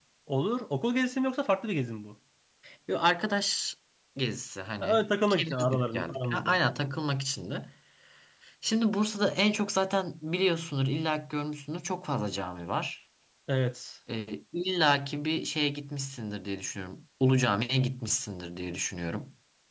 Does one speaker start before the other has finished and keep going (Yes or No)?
Yes